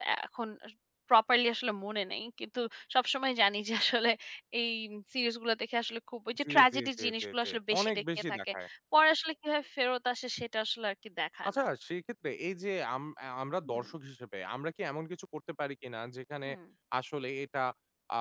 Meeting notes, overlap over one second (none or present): present